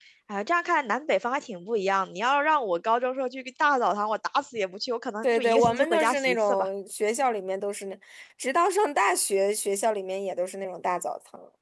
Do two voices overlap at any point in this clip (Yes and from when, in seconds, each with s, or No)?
Yes, from 5.2 s